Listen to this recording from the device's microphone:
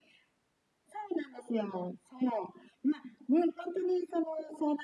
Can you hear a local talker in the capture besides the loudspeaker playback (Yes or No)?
No